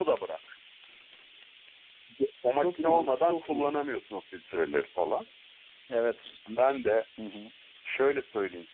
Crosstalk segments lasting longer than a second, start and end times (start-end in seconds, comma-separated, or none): 2.6-3.8